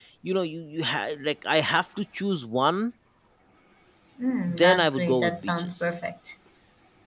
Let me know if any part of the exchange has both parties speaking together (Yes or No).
Yes